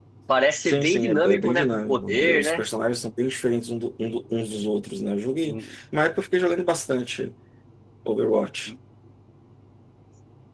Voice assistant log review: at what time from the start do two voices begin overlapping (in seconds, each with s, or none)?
0.6 s